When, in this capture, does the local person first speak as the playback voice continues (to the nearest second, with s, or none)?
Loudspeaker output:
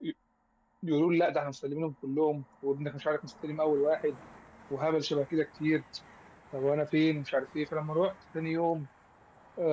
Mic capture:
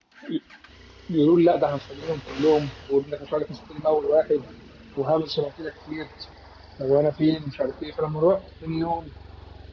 none